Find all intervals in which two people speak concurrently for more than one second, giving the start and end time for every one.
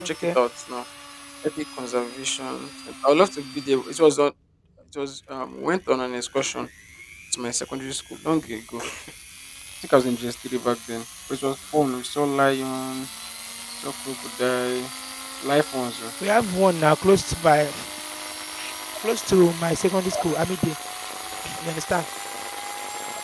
none

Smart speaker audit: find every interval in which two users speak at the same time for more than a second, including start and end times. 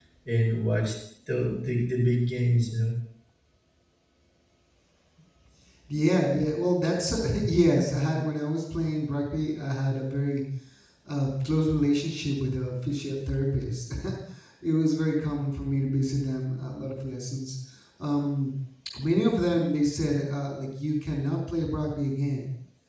none

